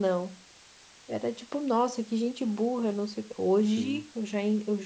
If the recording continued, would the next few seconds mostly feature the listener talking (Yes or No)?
No